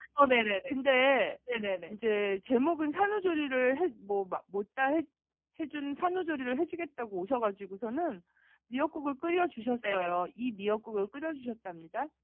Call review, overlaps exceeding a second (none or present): none